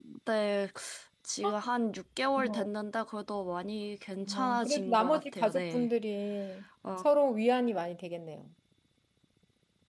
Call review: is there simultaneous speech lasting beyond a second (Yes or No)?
Yes